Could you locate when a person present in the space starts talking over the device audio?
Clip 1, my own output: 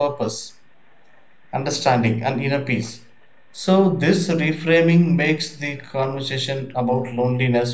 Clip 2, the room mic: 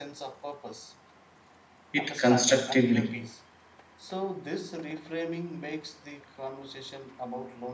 2 s

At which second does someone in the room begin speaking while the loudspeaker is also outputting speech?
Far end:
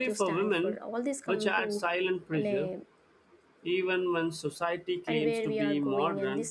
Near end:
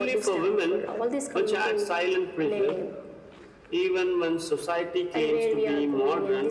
none

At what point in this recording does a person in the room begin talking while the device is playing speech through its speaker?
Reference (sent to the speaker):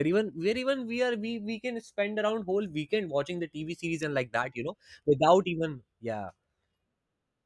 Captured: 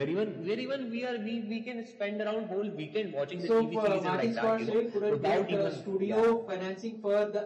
3 s

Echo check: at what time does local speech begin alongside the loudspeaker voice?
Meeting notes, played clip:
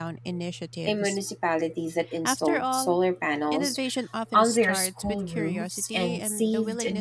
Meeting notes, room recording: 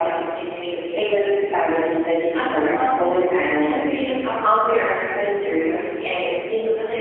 none

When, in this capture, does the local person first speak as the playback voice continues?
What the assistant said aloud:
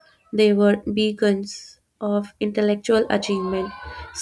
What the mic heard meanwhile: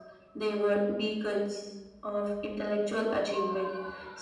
none

